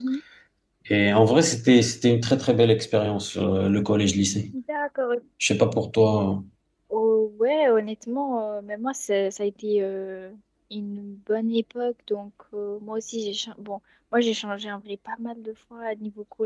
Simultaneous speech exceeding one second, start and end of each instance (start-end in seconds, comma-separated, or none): none